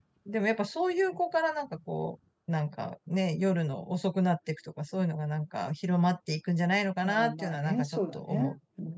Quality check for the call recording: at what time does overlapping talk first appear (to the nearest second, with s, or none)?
7 s